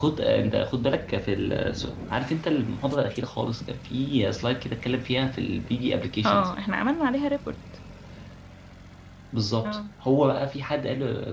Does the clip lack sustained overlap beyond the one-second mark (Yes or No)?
Yes